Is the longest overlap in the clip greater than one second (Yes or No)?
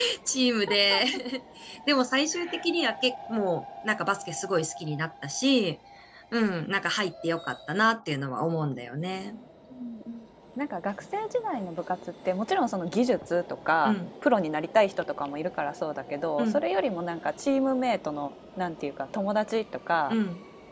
No